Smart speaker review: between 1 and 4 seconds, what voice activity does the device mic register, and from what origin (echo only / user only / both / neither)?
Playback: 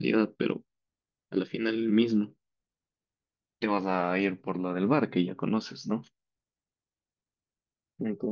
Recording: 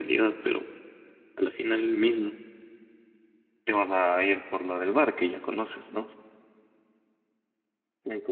echo only